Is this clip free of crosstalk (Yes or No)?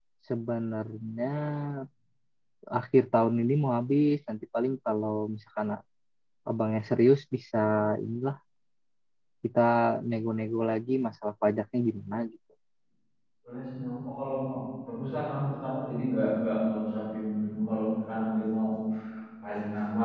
Yes